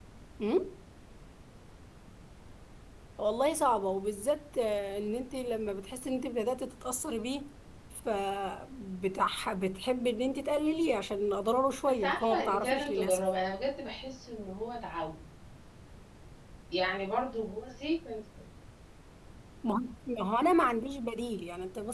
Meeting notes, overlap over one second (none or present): present